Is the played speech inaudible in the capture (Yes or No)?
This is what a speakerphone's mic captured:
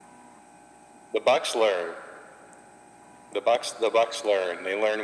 No